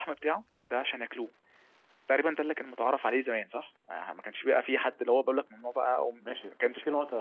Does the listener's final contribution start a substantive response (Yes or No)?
Yes